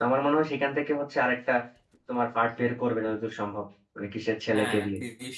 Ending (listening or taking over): taking over